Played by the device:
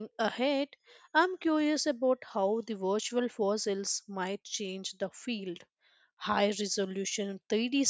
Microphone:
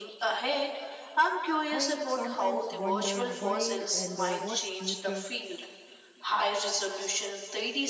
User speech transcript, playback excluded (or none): I sometimes wonder why and uh, what future